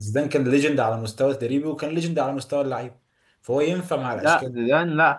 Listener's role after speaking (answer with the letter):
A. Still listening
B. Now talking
B